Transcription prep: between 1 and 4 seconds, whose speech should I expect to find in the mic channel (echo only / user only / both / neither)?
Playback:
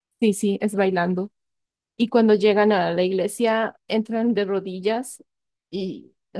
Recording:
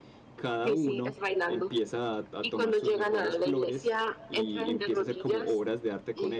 both